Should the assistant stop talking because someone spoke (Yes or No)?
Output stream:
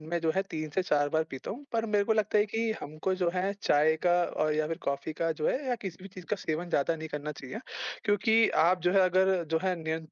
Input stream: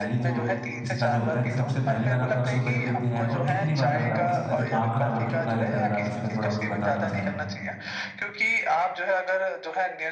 Yes